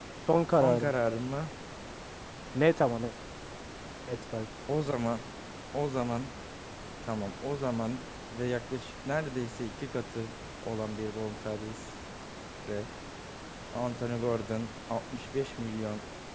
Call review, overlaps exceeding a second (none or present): none